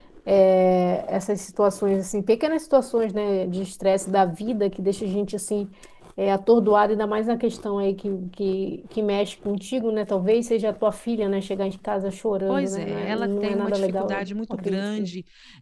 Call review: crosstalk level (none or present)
present